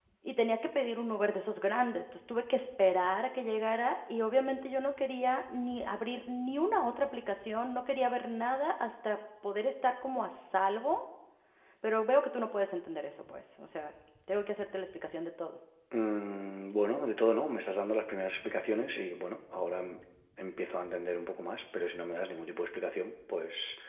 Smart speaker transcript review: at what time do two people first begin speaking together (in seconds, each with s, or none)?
none